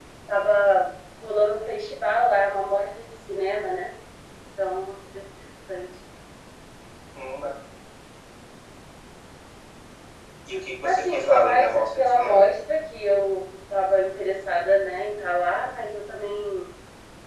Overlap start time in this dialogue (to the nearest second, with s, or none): 11 s